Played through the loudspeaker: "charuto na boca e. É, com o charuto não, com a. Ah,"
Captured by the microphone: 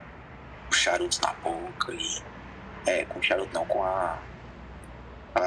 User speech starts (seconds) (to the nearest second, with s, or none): none